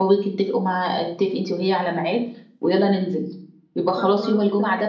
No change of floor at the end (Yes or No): Yes